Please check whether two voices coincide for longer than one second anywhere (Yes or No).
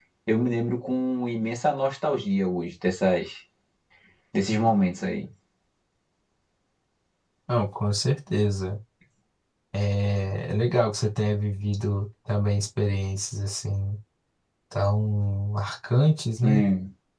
No